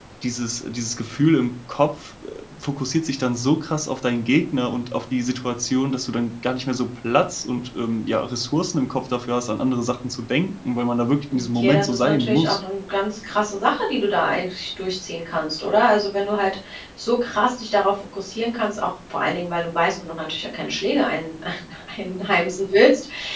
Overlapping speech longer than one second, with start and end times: 11.3-12.6

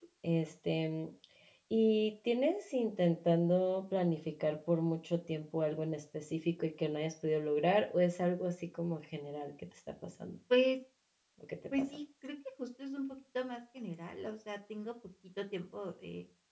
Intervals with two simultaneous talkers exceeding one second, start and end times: none

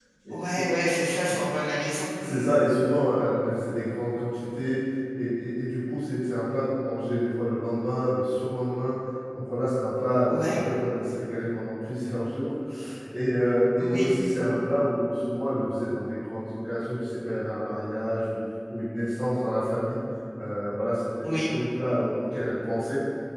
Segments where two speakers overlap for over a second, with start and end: none

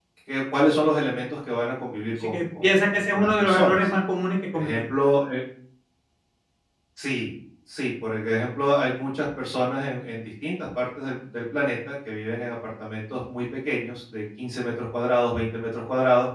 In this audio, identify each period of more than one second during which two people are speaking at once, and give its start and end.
2.2-3.9

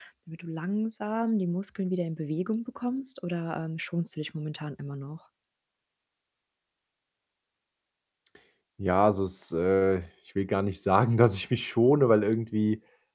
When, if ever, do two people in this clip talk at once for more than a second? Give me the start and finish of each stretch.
none

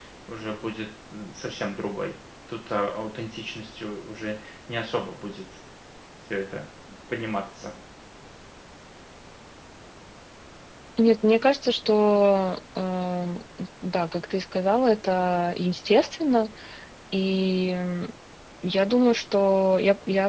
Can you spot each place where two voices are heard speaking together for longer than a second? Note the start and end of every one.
none

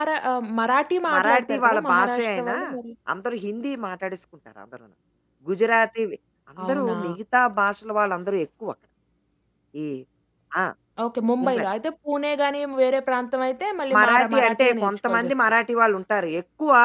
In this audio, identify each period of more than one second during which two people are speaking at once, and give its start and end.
1.1-2.6, 14.0-15.3

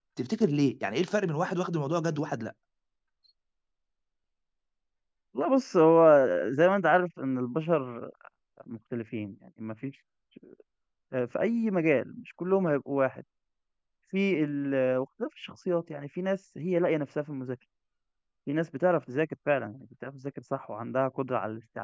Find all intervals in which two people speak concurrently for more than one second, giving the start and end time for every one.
none

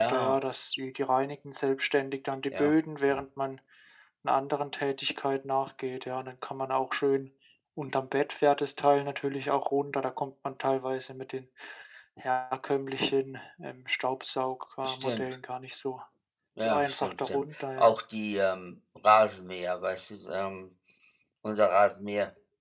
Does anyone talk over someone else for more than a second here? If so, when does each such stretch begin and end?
16.6-17.9

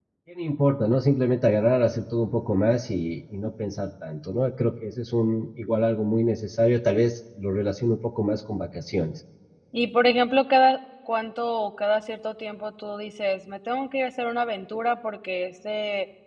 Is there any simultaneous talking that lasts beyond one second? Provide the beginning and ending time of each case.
none

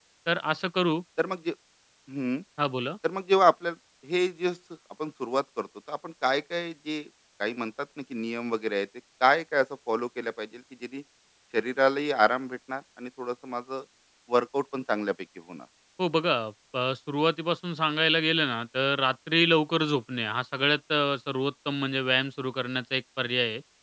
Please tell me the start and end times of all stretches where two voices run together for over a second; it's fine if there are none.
none

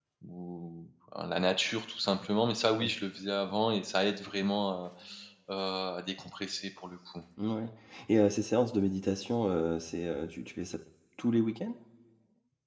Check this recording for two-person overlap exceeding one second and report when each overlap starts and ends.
none

